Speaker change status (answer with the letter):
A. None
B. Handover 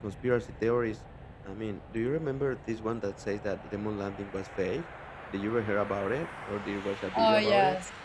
B